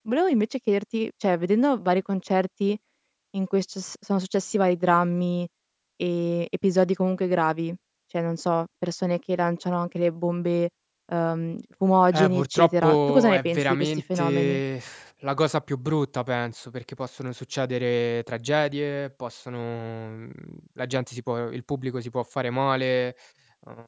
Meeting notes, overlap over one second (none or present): present